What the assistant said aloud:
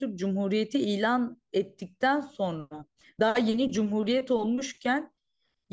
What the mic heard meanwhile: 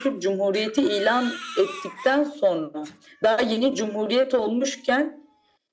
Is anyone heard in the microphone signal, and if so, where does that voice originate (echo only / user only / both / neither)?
echo only